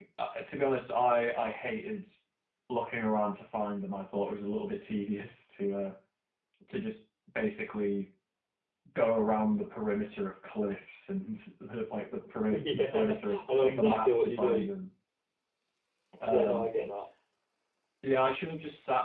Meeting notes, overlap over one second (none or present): present